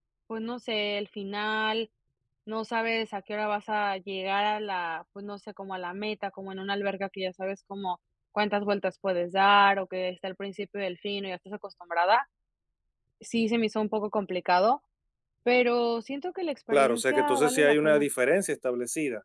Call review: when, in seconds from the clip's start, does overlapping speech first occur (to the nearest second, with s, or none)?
17 s